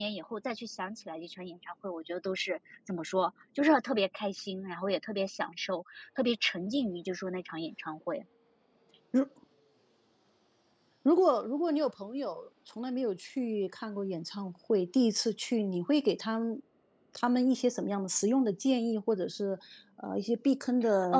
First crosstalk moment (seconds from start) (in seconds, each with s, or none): none